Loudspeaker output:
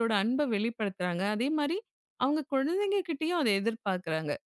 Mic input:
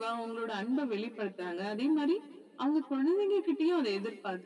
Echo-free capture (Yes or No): No